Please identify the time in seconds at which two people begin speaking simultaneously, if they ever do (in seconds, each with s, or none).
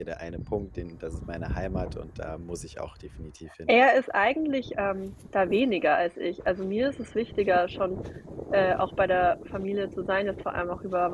none